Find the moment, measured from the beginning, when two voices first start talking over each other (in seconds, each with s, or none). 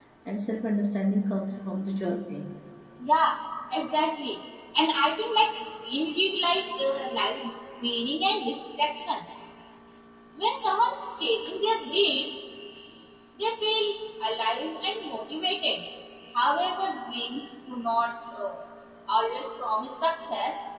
none